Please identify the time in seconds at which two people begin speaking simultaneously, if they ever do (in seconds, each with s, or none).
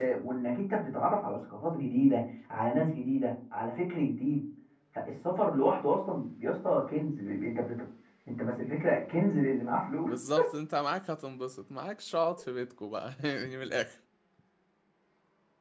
none